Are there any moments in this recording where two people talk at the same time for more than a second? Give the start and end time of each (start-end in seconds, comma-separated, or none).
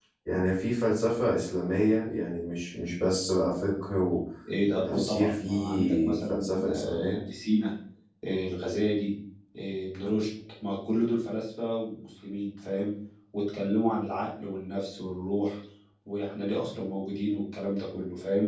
4.7-7.2